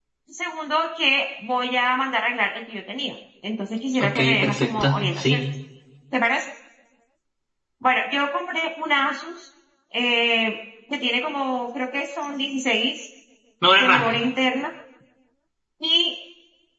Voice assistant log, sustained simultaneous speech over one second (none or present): present